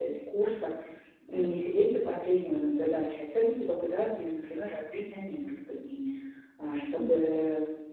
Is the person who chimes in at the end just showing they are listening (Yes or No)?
Yes